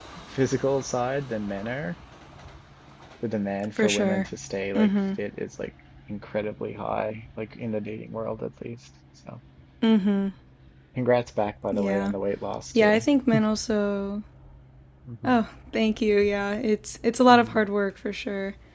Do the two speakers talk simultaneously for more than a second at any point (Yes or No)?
No